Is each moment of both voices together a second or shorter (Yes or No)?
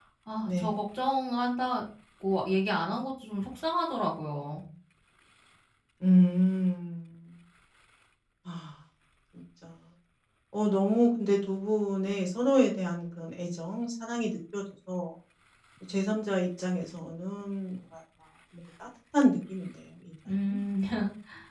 Yes